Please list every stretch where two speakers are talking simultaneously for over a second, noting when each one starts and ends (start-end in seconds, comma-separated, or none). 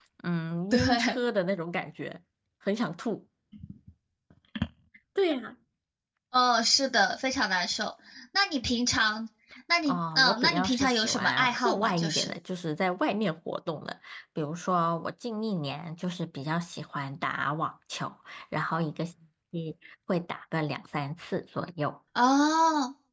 9.8-12.3